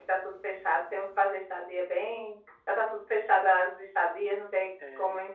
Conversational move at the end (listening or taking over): listening